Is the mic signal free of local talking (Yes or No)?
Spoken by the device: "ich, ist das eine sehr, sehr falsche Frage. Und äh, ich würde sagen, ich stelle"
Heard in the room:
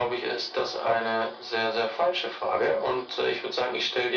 Yes